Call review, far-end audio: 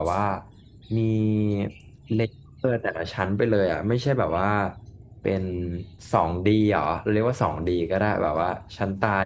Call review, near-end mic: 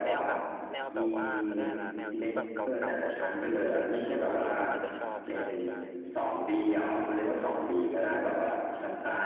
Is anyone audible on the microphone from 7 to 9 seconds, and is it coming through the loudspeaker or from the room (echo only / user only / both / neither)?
echo only